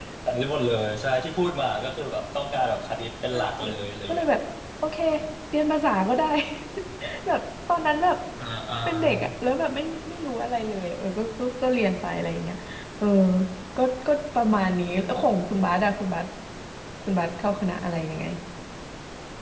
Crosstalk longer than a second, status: none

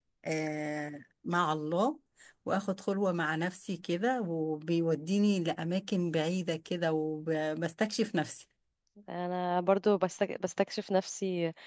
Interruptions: none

